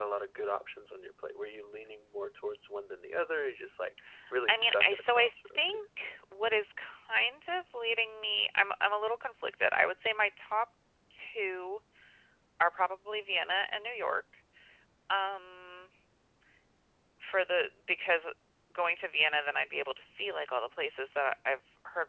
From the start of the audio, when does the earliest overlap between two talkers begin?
4.5 s

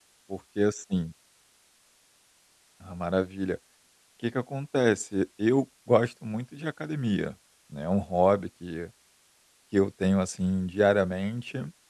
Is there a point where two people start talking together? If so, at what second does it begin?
none

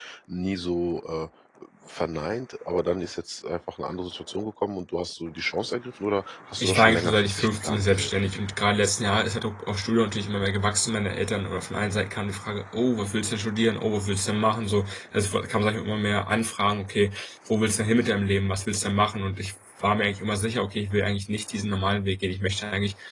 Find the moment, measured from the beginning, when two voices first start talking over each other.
6.6 s

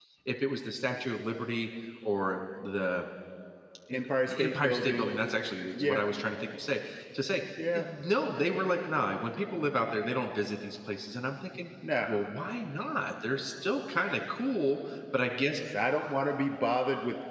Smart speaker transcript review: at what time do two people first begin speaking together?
3.9 s

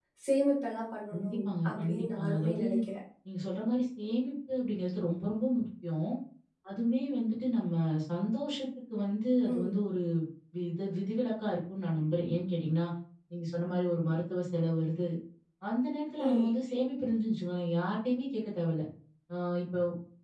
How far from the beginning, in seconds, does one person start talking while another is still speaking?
1.1 s

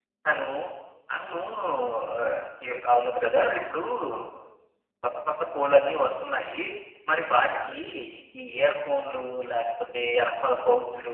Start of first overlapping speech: none

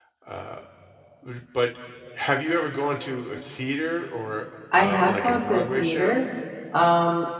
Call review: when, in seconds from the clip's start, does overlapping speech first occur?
4.7 s

